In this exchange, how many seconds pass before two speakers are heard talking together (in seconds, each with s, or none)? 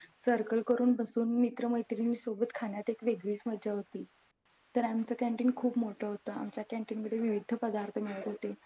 none